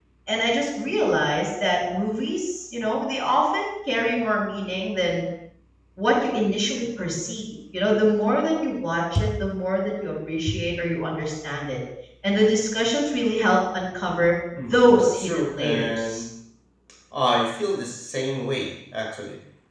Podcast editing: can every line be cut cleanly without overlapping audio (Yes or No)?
No